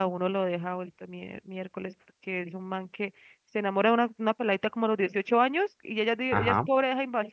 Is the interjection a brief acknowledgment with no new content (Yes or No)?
Yes